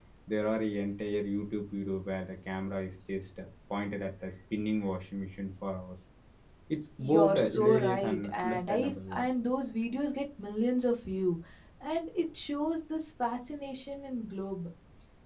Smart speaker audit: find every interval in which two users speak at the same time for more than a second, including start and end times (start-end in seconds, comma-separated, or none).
7.0-9.3